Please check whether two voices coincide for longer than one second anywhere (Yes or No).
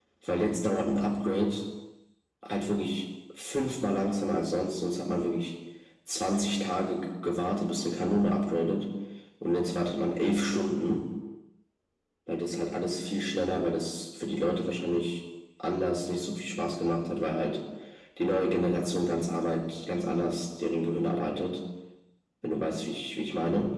No